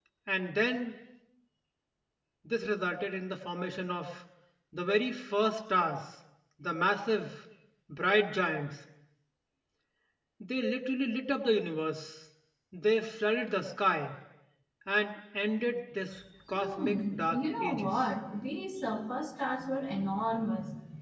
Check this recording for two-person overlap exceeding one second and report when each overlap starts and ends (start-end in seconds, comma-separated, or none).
16.6-18.0